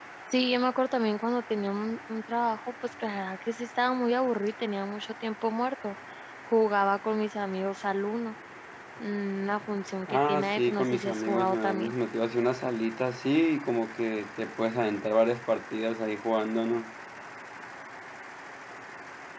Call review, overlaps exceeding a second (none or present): present